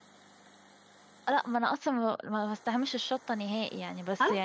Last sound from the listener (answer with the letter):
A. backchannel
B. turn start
B